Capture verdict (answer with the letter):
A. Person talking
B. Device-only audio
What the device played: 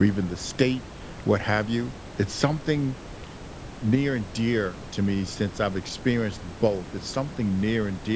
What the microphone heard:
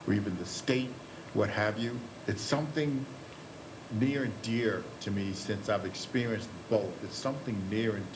B